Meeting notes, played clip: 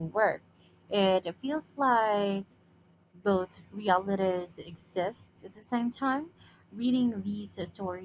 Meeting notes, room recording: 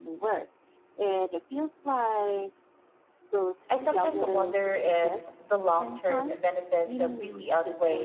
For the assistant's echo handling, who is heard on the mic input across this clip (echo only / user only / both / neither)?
both